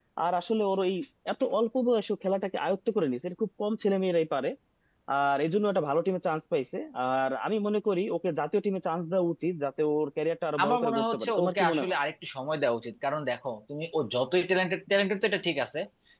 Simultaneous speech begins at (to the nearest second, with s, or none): 11 s